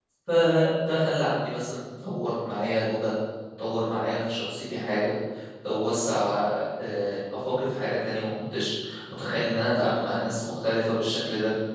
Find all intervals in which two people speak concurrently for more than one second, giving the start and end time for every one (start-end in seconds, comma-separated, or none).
none